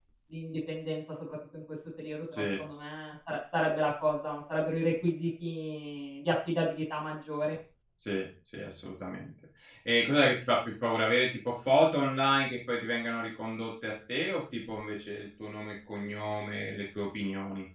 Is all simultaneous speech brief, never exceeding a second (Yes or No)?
Yes